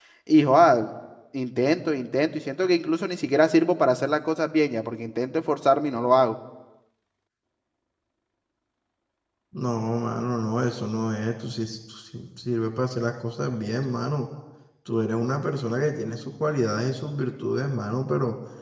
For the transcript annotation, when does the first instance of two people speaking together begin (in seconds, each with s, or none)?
none